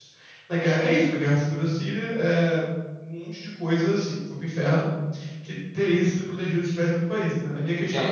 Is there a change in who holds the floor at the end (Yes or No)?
Yes